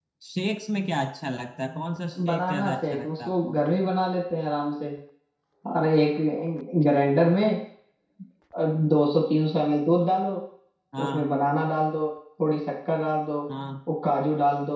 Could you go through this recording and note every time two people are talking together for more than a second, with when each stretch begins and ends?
2.3-3.5

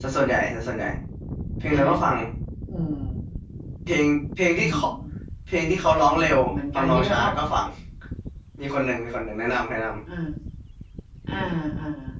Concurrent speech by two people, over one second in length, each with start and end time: 6.0-7.3

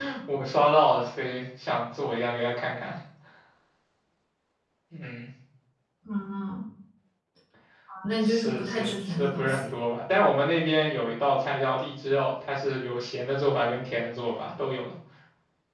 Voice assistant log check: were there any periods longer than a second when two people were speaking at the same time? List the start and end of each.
8.2-9.7

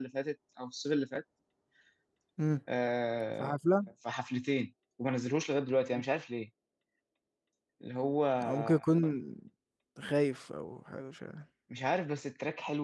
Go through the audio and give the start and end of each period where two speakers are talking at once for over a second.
none

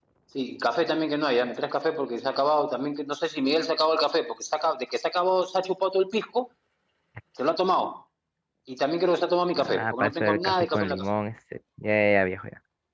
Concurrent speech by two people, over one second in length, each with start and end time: 9.6-11.1

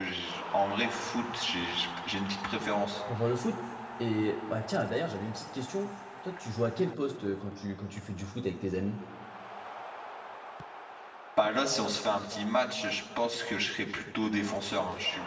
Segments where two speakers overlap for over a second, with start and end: none

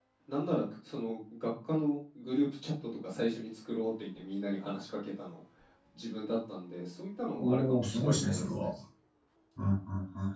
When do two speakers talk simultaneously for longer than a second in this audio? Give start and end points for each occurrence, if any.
7.4-8.7

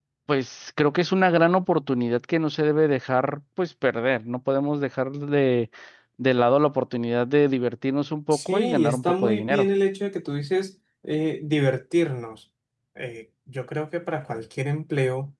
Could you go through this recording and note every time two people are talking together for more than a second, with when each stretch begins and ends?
8.3-9.7

